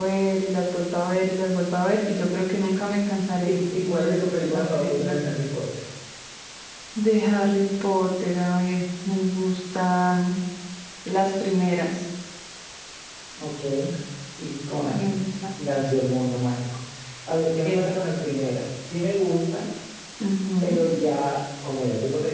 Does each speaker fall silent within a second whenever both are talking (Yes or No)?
No